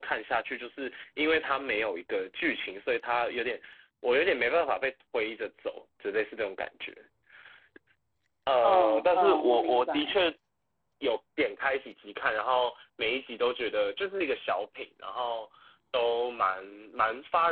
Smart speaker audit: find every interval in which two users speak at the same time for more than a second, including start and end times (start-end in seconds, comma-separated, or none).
8.6-10.2